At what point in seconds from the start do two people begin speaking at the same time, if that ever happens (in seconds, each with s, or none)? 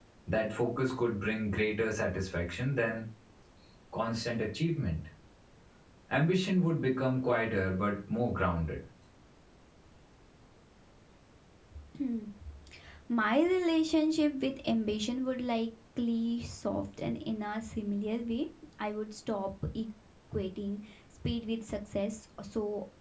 none